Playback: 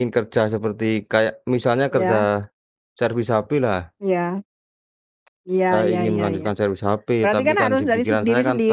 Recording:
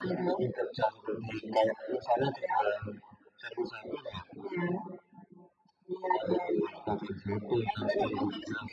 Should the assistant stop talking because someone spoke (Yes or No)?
No